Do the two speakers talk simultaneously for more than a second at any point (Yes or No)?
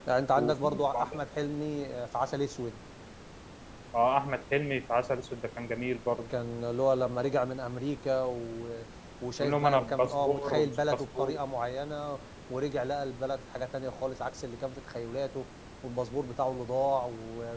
Yes